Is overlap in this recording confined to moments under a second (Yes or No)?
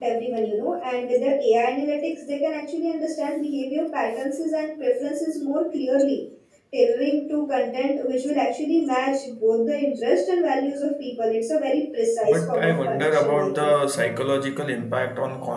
No